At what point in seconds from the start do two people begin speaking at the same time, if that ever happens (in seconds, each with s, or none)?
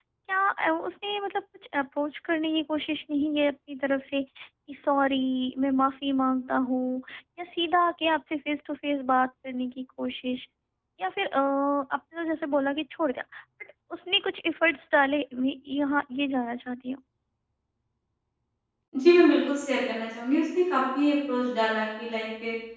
none